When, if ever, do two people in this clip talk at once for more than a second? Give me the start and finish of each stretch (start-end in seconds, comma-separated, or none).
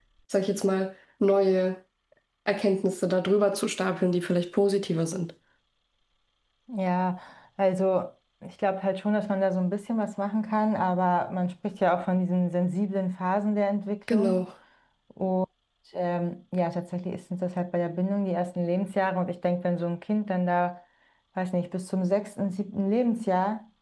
none